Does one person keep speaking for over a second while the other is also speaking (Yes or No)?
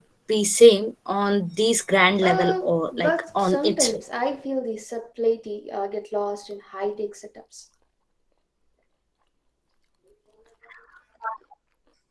Yes